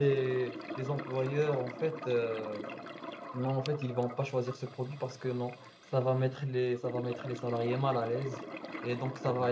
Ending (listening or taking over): listening